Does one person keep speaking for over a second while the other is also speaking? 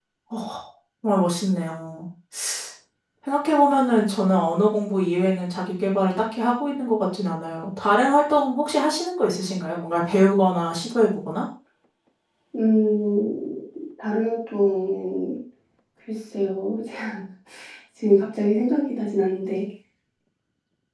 No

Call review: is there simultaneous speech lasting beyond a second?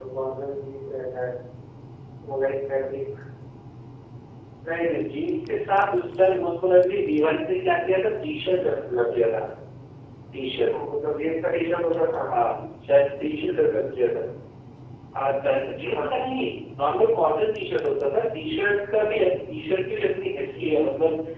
No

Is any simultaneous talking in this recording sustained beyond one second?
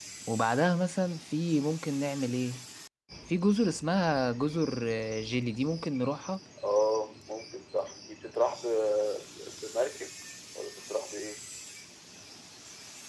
No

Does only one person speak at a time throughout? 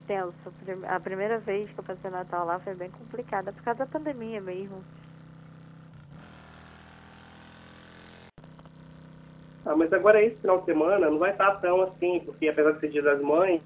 Yes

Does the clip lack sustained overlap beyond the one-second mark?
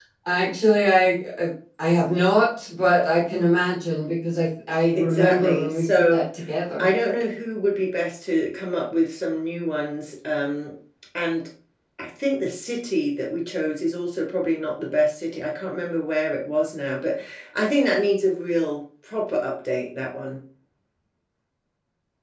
No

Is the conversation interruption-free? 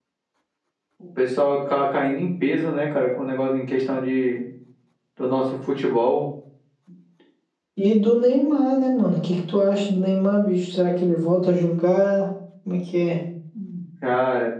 Yes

